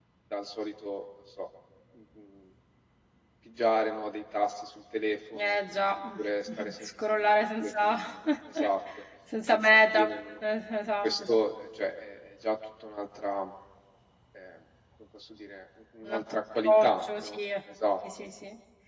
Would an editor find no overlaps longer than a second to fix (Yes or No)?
No